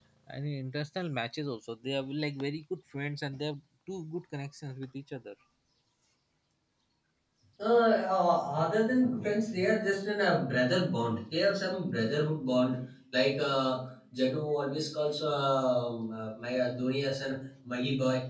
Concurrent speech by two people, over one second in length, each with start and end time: none

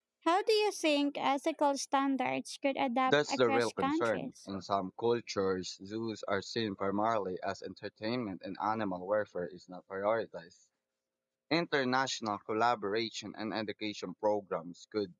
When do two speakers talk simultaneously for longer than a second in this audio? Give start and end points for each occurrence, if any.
3.1-4.3

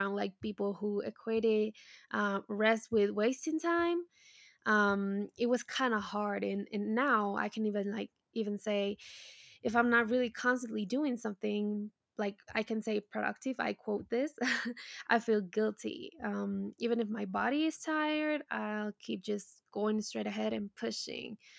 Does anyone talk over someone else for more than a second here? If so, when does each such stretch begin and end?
none

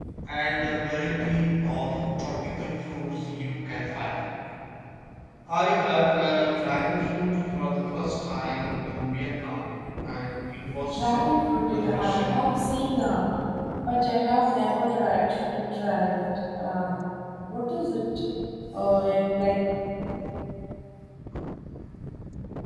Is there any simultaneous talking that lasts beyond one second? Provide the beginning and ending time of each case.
10.9-12.3

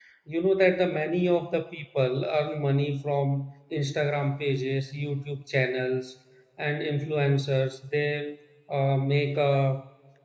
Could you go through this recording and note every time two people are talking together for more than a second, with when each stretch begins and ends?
none

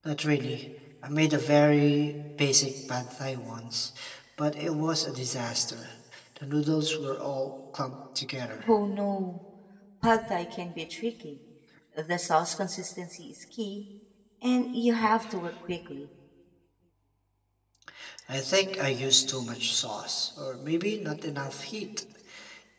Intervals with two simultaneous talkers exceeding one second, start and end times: none

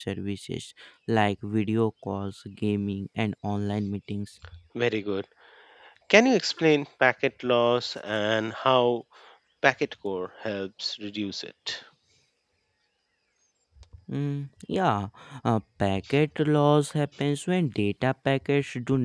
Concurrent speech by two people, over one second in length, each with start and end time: none

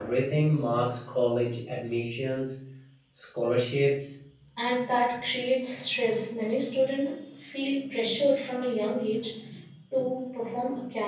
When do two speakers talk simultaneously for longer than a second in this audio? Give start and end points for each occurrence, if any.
none

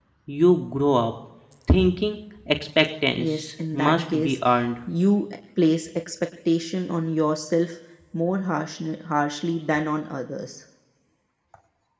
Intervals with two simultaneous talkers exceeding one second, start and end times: 3.2-4.4

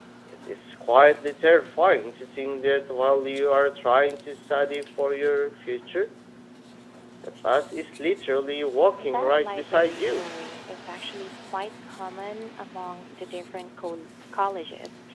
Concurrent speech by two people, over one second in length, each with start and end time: 9.0-10.2

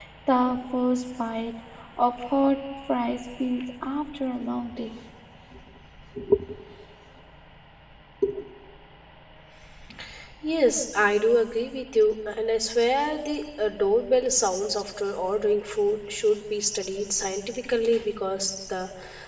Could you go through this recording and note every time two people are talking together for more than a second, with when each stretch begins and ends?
none

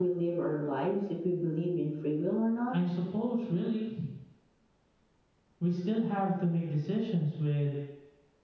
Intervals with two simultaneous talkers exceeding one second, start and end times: none

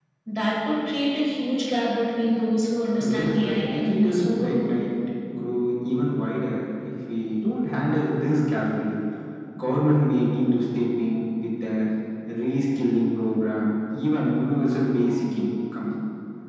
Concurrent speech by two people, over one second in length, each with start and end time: 3.2-4.7

